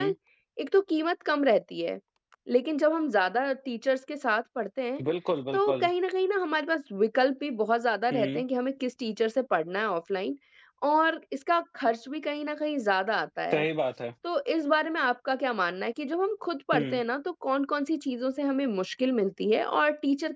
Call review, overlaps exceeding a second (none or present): none